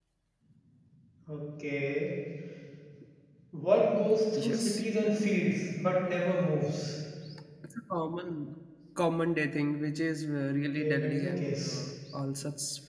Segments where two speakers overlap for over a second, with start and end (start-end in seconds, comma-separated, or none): 10.5-11.8